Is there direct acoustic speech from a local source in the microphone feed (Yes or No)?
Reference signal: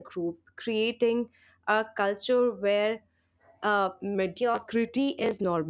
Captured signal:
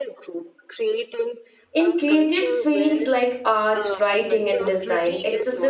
Yes